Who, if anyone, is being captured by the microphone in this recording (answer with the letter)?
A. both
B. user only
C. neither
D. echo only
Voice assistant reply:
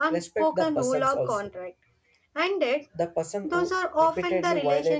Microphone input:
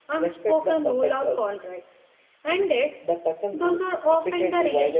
D